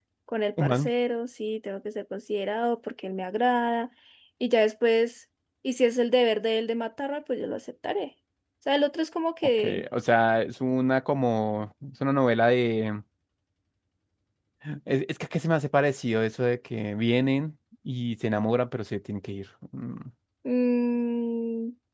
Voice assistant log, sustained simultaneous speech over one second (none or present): none